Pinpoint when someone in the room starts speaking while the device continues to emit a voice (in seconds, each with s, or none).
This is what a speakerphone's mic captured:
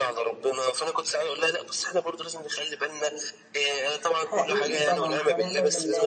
4.2 s